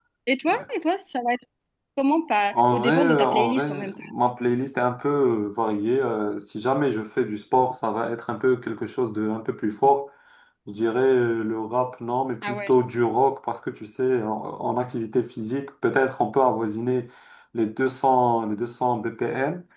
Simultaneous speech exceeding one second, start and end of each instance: 2.5-3.9

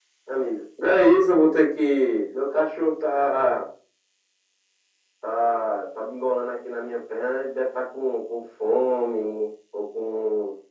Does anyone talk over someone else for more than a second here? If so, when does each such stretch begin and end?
none

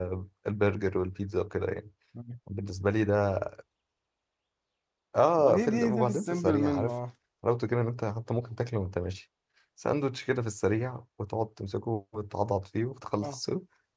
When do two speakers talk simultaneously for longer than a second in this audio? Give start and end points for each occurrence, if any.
5.4-7.0

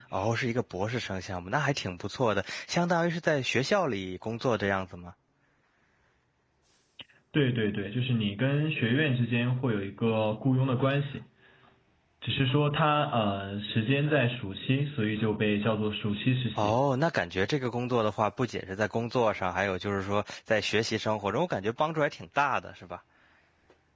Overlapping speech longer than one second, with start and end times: none

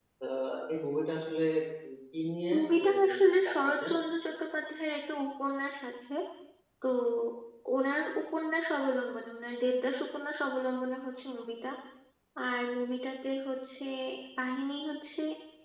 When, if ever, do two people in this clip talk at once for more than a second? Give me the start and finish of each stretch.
2.6-3.9

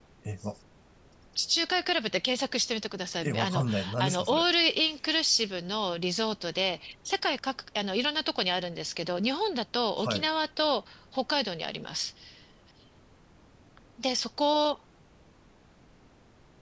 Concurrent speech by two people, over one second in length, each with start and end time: 3.2-4.4

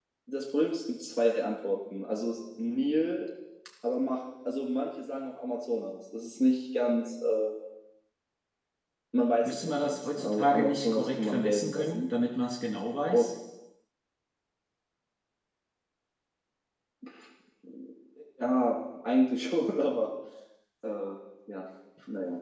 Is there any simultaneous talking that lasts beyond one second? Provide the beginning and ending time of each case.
9.4-12.0

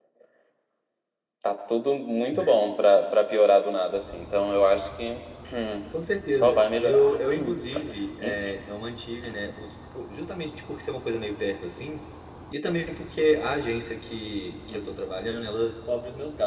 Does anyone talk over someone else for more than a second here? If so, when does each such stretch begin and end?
6.3-7.5

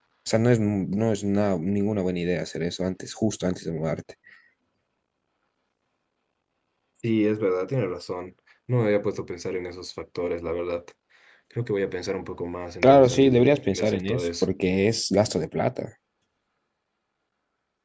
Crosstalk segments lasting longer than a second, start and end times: 12.8-14.4

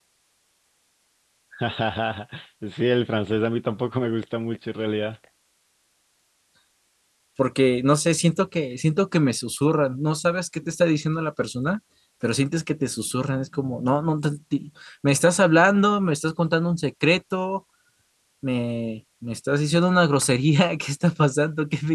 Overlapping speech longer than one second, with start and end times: none

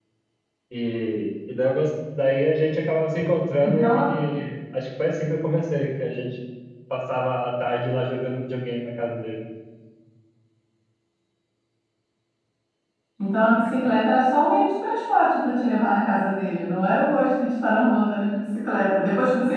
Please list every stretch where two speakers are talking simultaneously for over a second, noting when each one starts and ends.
none

